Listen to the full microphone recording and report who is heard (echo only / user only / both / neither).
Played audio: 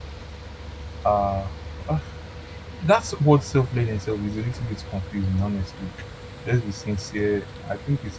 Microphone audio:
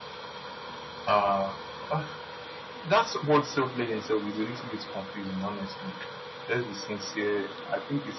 echo only